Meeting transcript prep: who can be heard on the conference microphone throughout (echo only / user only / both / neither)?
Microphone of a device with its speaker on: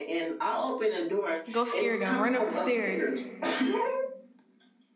both